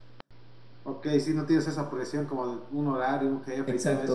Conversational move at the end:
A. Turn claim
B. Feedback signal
A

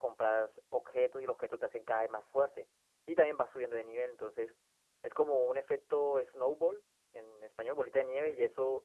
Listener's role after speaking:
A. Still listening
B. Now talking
A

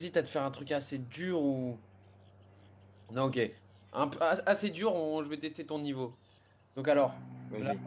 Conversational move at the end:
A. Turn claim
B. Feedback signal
B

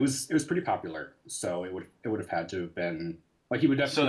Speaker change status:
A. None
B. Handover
A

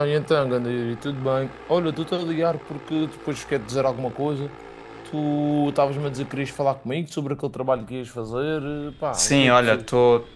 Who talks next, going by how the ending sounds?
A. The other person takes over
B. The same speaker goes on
A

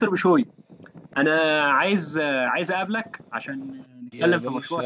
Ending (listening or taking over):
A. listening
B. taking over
B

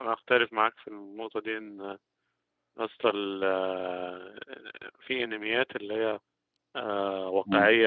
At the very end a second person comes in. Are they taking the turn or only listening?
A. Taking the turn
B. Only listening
B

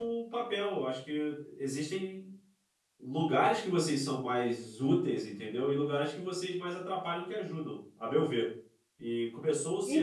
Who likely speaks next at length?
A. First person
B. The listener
B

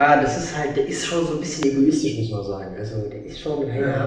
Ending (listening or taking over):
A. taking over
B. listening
B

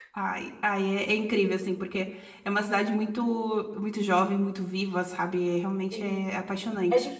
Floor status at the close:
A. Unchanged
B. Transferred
B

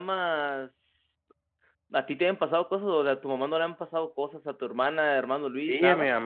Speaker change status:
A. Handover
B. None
A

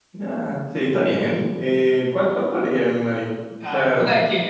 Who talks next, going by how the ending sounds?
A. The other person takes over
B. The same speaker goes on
A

